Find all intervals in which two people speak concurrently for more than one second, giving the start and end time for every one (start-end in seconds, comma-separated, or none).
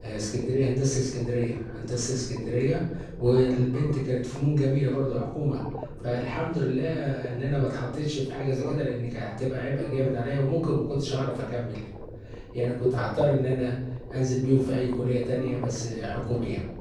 none